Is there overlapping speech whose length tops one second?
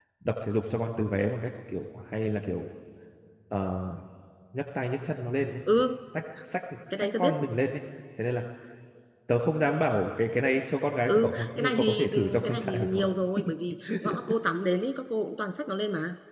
Yes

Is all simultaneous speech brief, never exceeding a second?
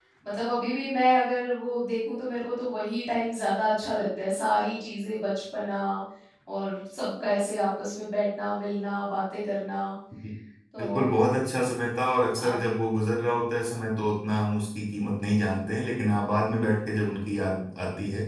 Yes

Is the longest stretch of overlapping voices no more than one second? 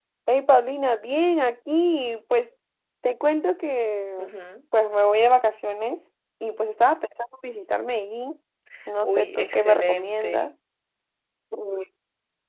No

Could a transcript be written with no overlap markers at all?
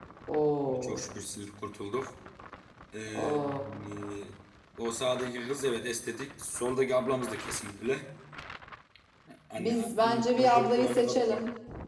No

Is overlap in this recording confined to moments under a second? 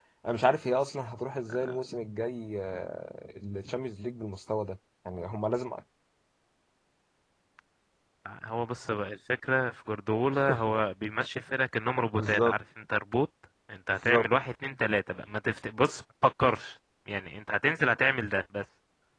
Yes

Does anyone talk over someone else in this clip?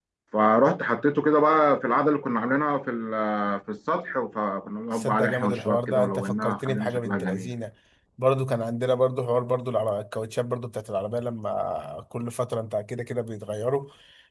Yes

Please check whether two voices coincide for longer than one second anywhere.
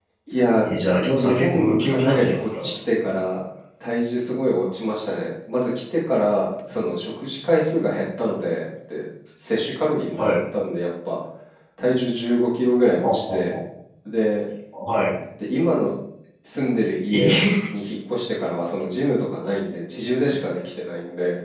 Yes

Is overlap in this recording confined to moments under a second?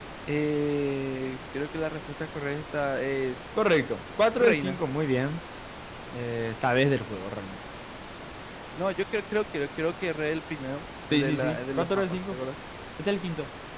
No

